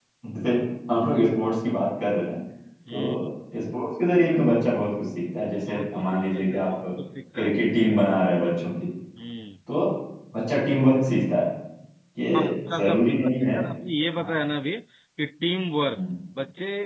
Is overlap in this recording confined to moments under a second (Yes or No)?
No